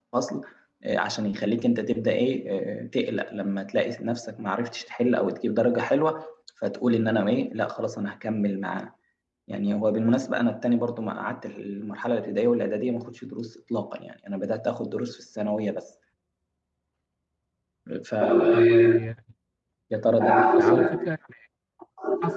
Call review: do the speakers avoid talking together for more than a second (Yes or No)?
Yes